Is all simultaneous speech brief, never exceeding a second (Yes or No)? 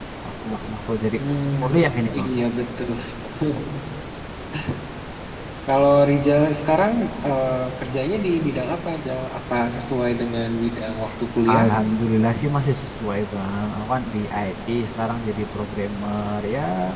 Yes